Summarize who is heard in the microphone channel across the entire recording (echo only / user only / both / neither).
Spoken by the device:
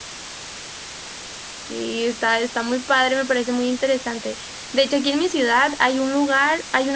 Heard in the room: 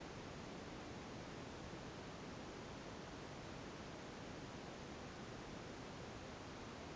neither